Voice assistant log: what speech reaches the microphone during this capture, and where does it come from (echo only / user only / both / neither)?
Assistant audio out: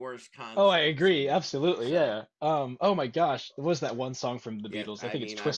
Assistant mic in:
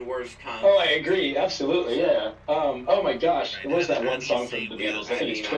both